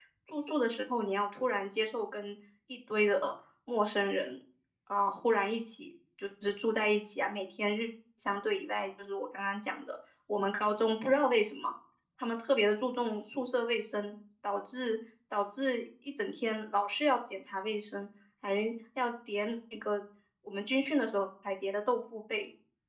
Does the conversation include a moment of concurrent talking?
No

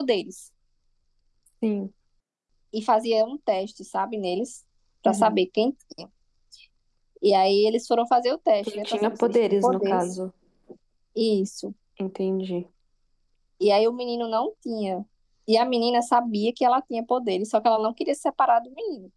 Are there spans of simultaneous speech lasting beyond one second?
Yes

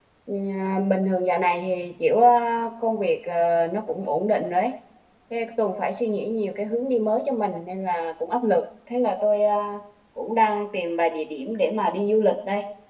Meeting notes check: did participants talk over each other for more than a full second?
No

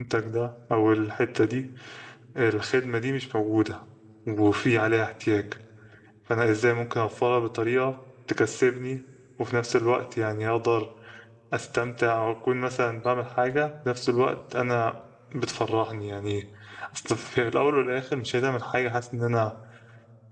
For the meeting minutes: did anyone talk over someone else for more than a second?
No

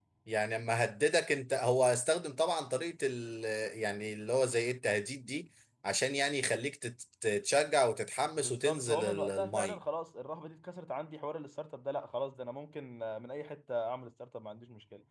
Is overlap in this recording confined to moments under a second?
No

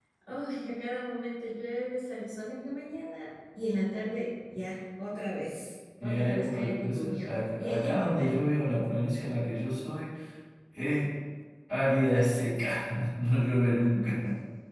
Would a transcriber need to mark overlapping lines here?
Yes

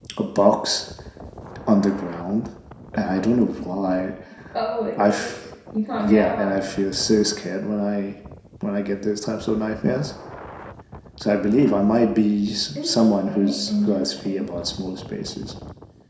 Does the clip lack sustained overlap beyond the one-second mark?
No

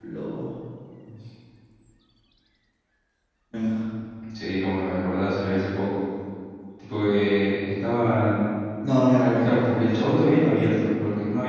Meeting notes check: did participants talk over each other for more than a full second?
No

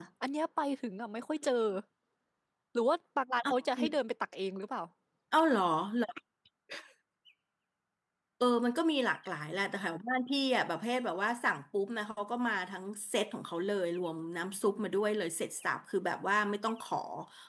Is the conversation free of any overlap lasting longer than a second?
Yes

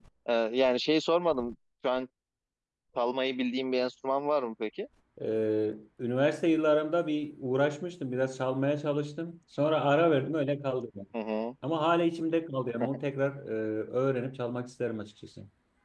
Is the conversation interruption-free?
Yes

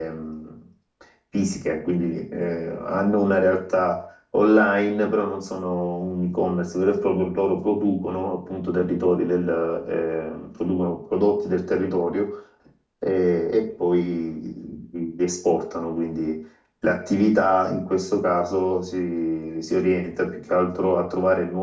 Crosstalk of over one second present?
No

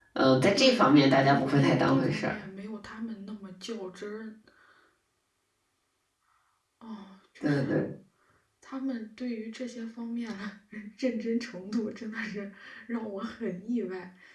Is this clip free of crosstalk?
No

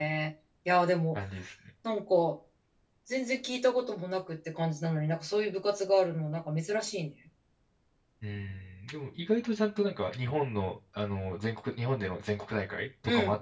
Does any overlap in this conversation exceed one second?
No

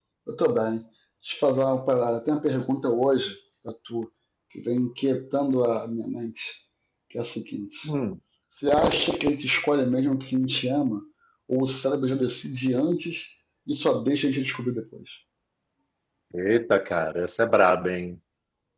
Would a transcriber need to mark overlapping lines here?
No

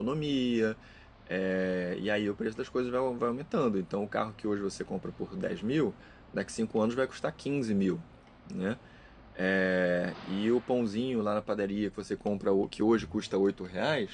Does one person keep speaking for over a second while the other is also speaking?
No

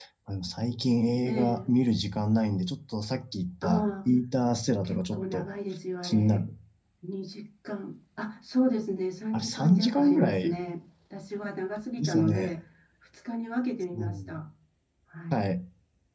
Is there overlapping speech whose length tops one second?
Yes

